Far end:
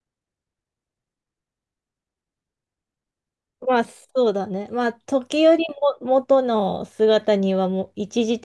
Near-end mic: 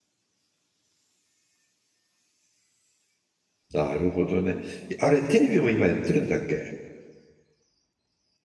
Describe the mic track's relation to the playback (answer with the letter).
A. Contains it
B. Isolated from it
B